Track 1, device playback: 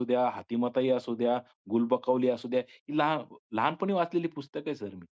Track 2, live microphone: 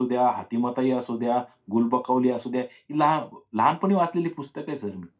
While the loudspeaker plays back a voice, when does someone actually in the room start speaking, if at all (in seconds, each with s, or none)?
none